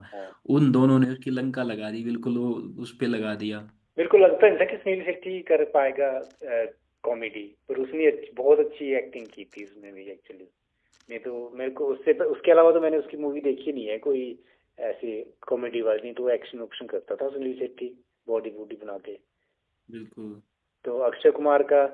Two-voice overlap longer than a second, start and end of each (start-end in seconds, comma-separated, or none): none